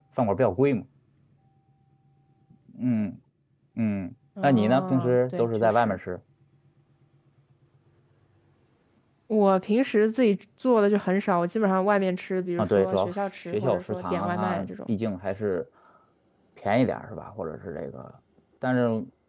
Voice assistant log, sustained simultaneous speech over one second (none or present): present